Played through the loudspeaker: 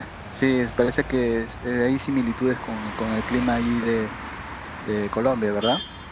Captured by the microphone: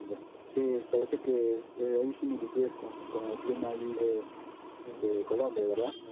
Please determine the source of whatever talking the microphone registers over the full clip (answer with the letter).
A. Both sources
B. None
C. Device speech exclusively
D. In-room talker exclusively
A